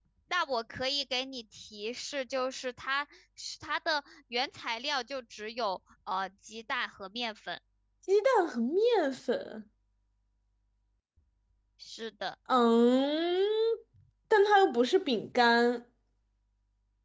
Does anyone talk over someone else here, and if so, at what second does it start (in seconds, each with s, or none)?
none